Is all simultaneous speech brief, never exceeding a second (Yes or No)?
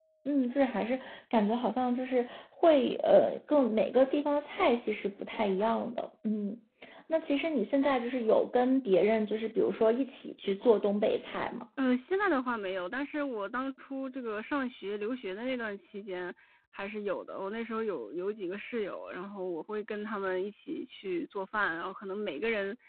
Yes